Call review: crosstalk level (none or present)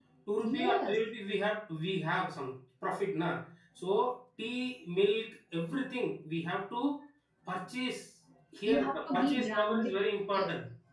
present